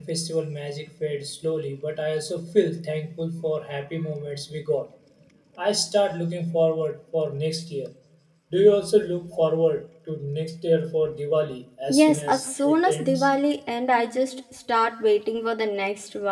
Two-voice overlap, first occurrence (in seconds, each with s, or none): 11.9 s